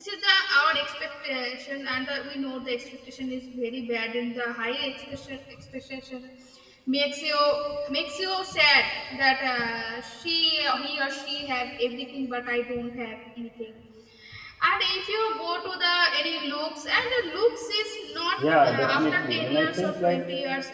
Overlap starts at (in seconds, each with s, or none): 18.4 s